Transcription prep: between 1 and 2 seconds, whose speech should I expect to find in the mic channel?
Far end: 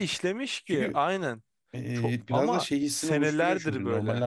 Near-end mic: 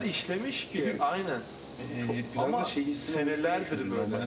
echo only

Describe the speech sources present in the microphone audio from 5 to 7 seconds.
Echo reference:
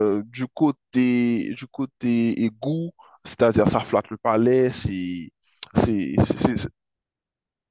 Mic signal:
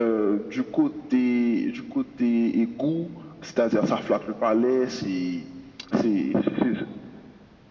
echo only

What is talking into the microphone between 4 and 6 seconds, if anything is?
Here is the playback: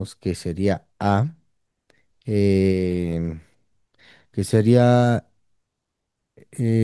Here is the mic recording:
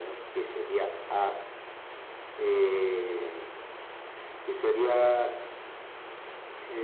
echo only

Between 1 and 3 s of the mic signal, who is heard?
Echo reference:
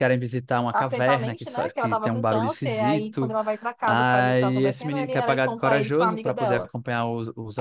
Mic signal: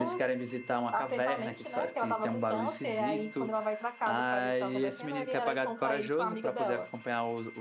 echo only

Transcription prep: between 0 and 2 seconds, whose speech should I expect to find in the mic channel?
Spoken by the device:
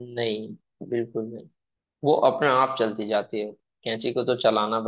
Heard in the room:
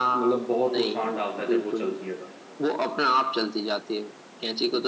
both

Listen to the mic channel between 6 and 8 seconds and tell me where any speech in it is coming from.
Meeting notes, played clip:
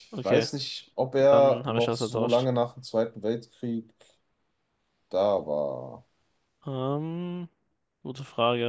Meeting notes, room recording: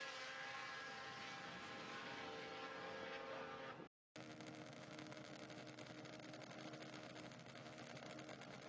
neither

